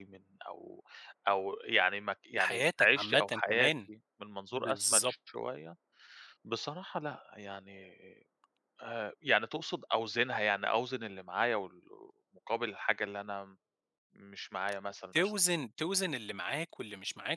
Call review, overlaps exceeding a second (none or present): present